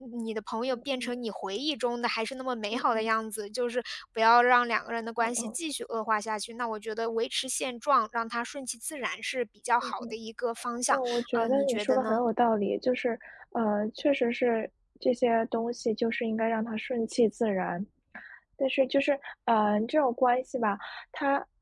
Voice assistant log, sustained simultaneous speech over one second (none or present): present